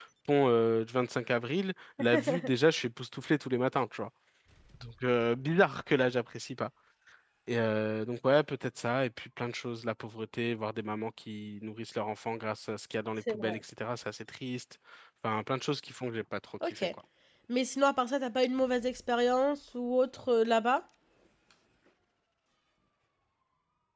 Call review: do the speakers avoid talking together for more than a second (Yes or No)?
Yes